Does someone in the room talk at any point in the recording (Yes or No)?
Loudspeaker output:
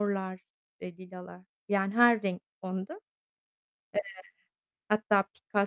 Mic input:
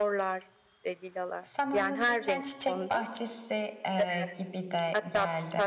Yes